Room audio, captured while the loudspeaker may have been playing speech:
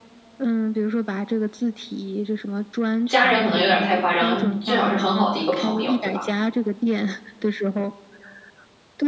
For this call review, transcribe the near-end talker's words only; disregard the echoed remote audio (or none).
家人可能有点太夸张，最好是很好的一个朋友，对吧？